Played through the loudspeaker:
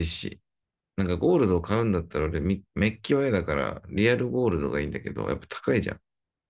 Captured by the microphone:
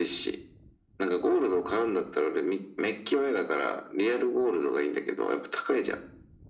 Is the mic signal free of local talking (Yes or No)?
Yes